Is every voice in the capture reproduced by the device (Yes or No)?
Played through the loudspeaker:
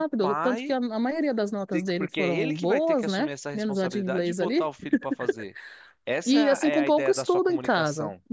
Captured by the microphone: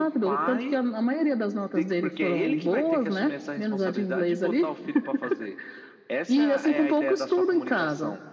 Yes